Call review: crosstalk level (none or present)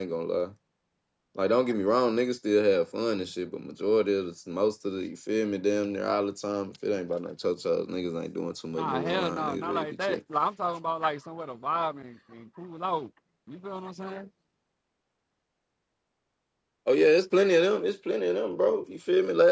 present